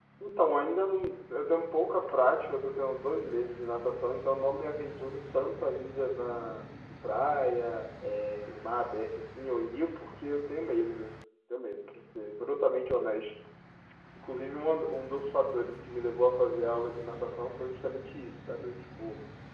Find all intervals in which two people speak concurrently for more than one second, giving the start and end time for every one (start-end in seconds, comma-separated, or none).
none